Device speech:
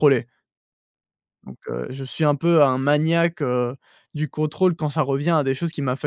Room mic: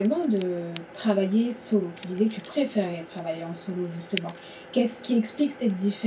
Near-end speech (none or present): present